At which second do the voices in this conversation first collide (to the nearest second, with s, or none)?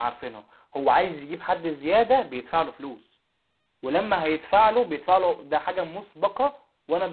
none